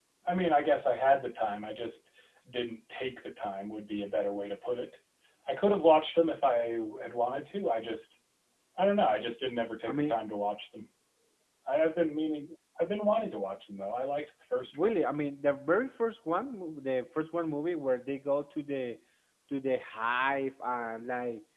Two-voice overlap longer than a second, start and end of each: none

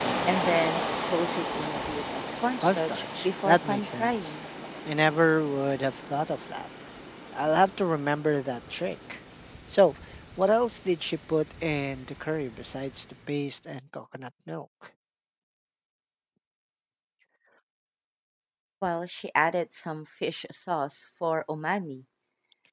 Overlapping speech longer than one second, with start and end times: 2.6-4.3

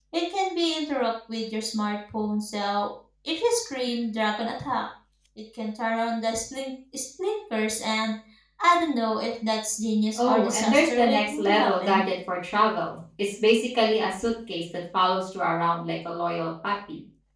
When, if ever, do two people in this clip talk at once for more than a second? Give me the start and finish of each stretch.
10.2-12.0

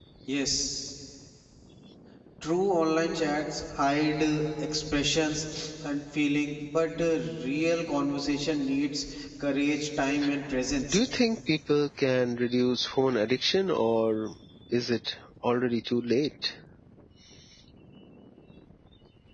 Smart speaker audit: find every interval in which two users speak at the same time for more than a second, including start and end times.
none

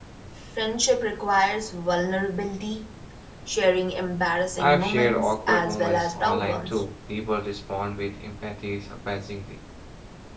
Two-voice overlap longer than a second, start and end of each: 4.6-6.8

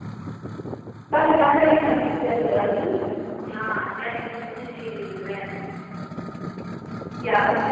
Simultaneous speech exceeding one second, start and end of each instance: none

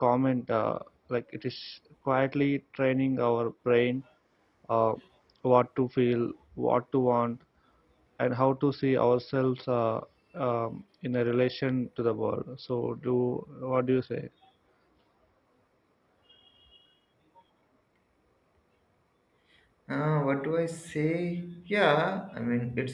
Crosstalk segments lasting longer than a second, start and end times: none

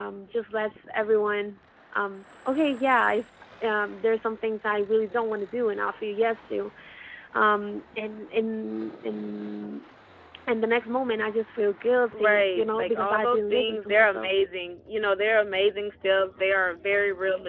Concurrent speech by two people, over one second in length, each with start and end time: 12.1-14.3

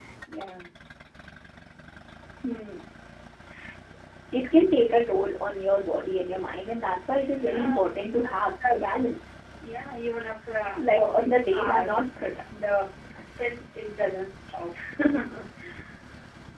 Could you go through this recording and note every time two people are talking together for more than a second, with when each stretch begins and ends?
7.4-8.9, 10.8-12.1

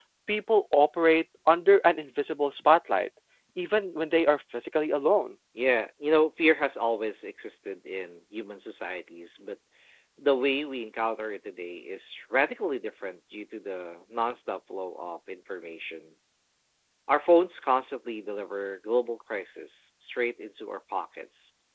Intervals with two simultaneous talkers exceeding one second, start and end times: none

